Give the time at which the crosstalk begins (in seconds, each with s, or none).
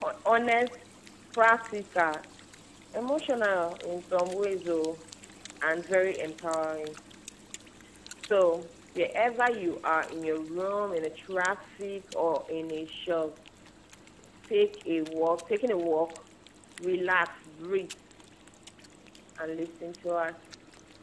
none